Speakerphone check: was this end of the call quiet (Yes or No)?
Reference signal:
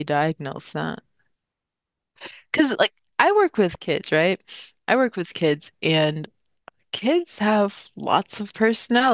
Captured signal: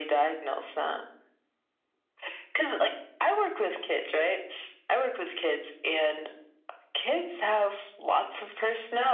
Yes